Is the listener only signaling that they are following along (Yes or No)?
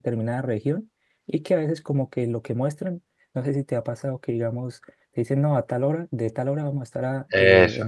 Yes